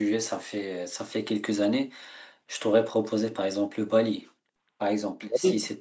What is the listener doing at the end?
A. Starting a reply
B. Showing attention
B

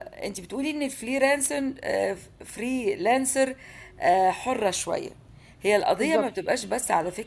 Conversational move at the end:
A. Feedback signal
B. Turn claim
A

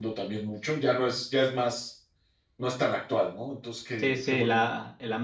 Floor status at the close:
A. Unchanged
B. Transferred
B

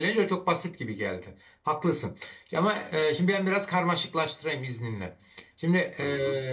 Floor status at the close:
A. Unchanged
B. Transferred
A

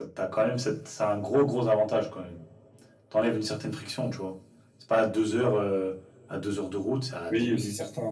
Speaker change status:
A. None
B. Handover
B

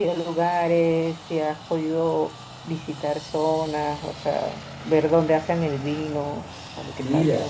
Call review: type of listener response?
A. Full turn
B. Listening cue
A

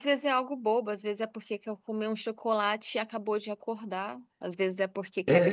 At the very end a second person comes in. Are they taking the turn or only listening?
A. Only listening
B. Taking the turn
A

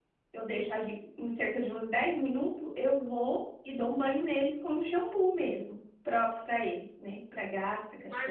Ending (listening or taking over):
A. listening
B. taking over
B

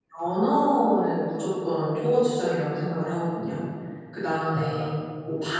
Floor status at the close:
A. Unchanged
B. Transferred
A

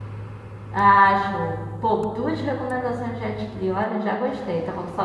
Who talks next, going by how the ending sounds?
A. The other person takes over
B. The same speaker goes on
A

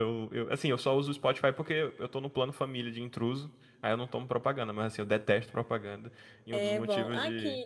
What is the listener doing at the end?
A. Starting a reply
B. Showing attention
A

